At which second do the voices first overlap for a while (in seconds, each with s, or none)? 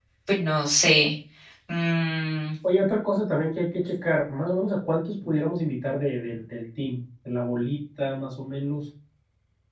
none